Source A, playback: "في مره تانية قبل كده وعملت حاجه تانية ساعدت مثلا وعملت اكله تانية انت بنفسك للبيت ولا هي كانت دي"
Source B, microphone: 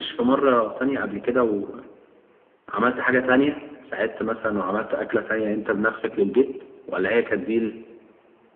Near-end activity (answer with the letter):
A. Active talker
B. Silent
B